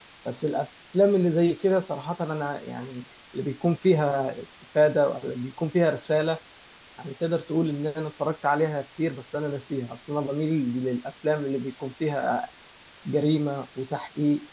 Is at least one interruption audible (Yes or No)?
No